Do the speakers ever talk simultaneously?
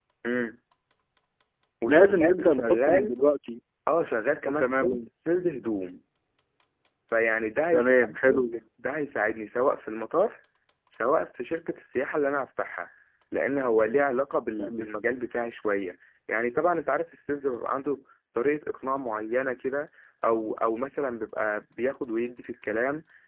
Yes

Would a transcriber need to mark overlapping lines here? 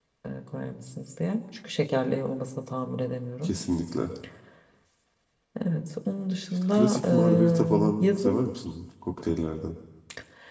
Yes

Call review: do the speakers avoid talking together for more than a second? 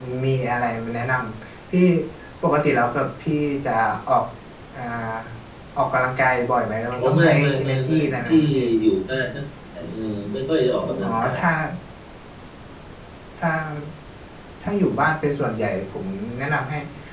No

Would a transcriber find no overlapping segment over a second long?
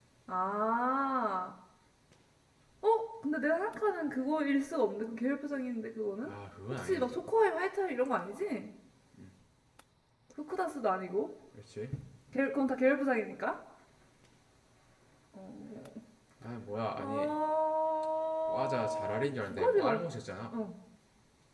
No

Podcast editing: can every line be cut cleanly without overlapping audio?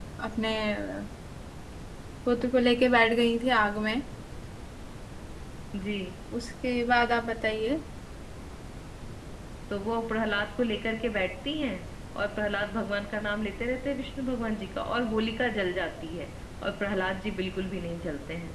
Yes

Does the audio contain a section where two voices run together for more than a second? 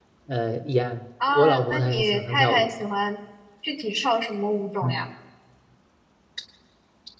Yes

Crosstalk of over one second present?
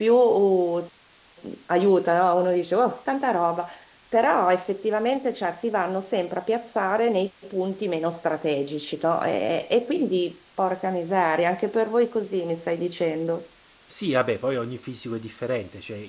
No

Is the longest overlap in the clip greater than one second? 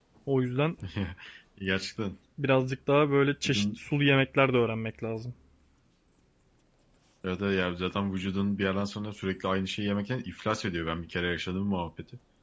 No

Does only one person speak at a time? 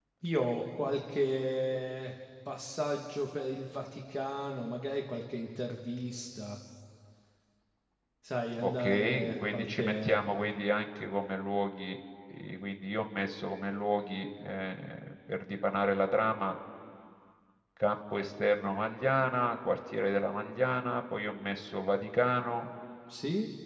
No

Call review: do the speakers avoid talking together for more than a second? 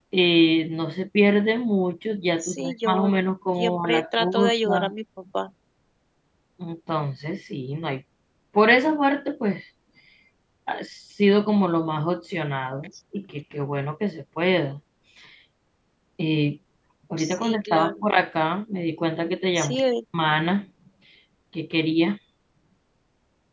No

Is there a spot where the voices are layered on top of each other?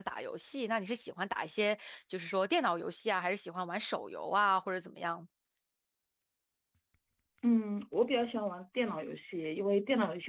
No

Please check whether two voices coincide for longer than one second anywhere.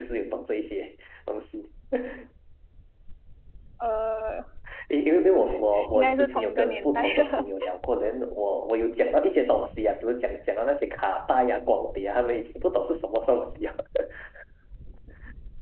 Yes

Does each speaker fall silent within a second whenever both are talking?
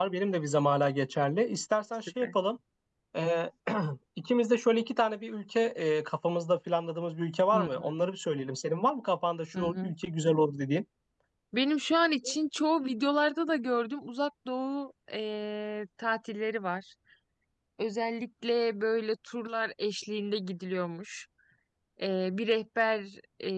Yes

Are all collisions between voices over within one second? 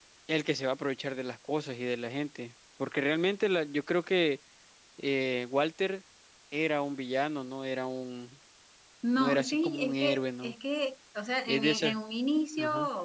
No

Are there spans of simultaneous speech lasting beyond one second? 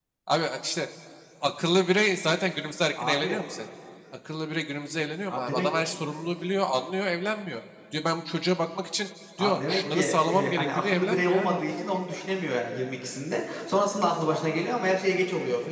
Yes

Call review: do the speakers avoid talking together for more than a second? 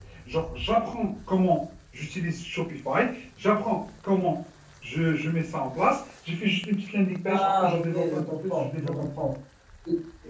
No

